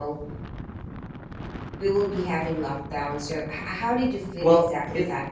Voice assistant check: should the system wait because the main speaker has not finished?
No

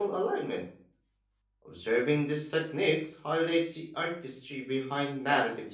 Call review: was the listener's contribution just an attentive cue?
No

